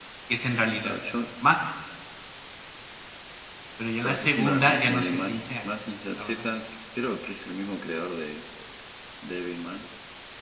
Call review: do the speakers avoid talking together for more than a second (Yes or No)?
No